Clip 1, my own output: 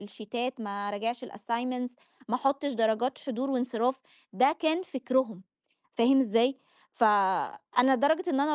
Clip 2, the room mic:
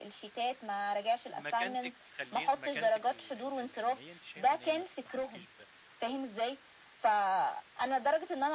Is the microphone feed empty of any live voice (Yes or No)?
No